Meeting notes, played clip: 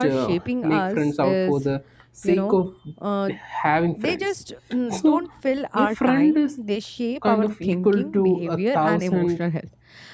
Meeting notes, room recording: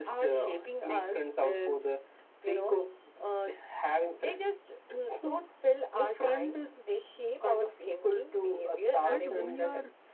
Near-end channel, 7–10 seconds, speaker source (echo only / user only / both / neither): both